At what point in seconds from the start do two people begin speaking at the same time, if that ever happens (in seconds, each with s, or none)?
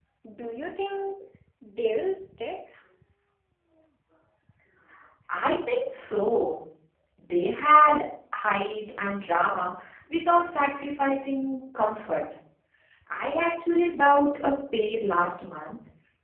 none